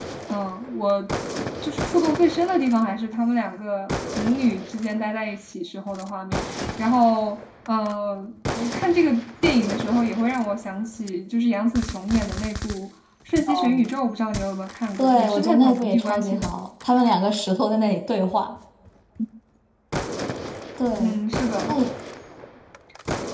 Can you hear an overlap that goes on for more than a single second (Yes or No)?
Yes